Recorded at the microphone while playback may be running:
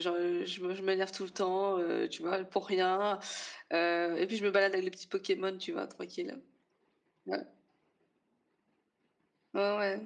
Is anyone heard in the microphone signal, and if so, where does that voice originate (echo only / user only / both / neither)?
user only